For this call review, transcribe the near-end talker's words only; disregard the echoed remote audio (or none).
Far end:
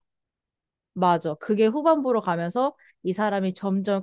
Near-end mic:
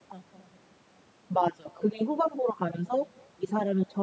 none